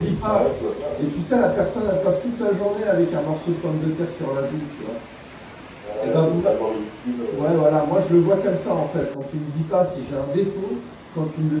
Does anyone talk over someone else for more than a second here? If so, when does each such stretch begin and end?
none

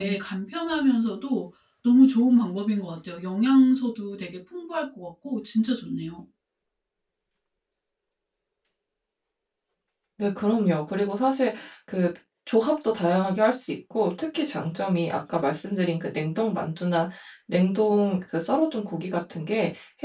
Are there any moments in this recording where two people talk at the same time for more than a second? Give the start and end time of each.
none

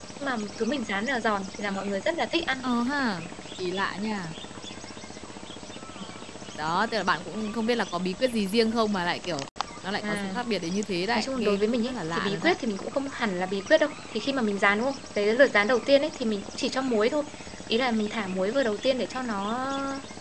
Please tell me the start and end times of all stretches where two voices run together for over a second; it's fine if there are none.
11.1-12.6

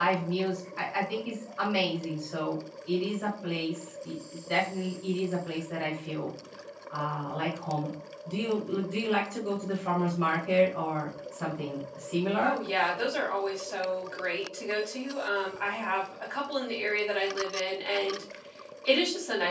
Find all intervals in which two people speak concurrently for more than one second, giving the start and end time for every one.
none

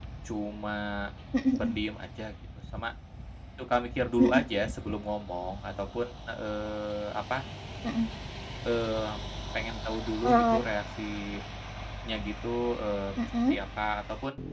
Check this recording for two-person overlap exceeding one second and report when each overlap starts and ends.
none

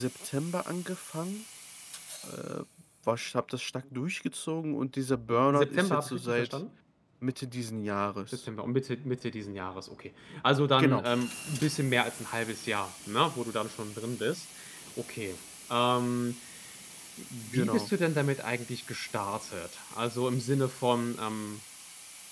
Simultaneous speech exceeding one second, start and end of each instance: 5.3-6.6

